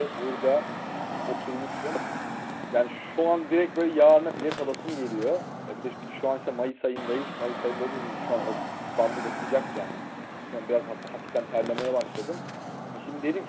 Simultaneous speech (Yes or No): No